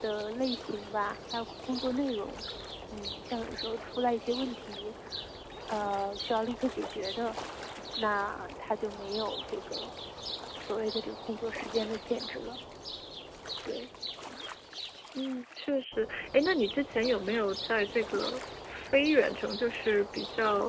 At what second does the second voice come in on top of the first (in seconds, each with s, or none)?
none